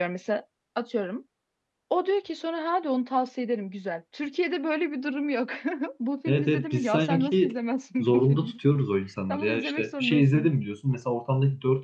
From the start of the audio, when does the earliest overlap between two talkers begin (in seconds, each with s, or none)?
6.3 s